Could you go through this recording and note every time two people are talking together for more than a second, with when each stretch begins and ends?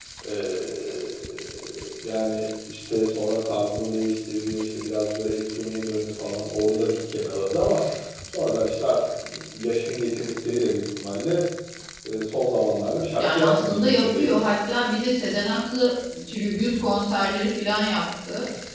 13.2-14.4

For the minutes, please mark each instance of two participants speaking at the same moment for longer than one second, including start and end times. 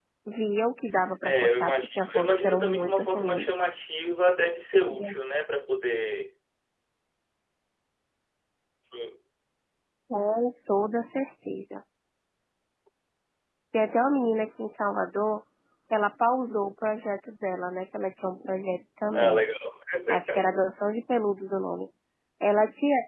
1.2-3.6

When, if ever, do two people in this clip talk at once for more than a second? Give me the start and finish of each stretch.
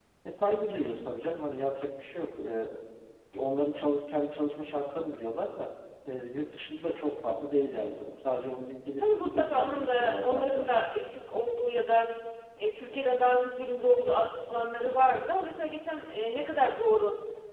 9.0-10.7

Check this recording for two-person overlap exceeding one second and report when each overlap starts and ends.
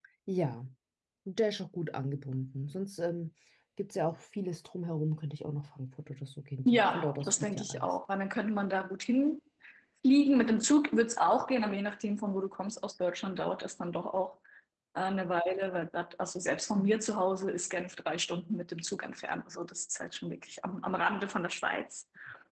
6.7-7.9

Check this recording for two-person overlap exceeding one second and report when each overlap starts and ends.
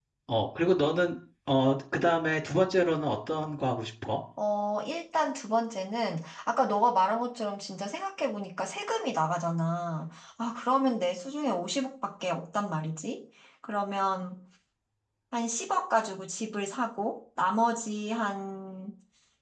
none

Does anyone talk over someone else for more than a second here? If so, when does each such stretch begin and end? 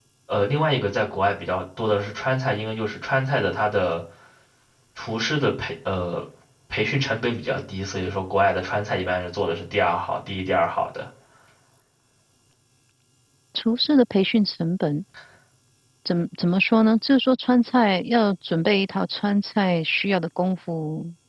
none

